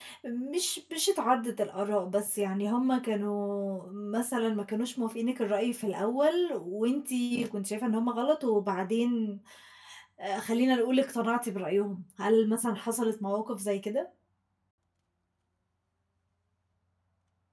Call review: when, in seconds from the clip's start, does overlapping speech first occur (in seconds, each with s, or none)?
none